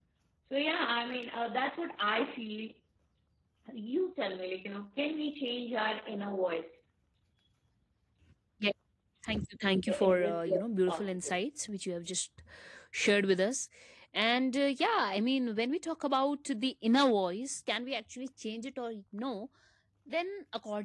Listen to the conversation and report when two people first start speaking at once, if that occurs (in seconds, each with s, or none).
9.9 s